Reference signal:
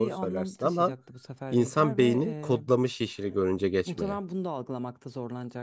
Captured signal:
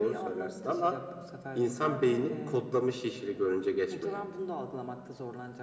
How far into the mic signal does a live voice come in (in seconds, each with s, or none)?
none